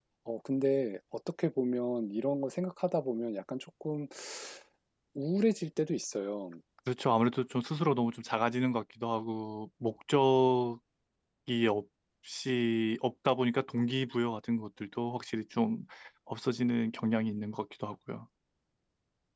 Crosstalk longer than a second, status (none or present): none